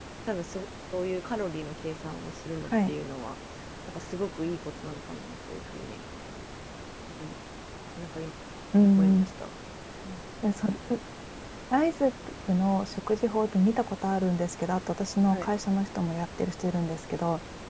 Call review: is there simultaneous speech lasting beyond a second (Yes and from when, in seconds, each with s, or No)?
No